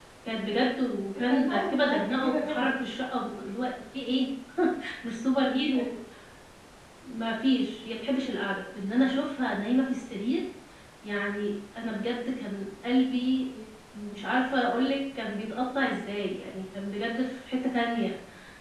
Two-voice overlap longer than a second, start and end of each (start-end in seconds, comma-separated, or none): 1.1-2.7